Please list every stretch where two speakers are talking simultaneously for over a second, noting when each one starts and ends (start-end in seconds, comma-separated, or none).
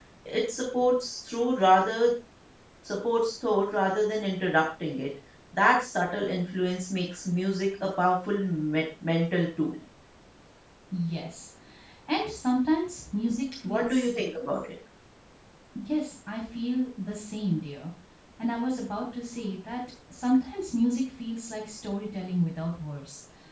none